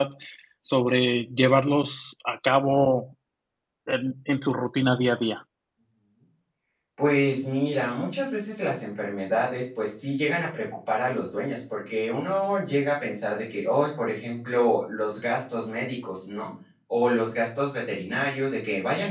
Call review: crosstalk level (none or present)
none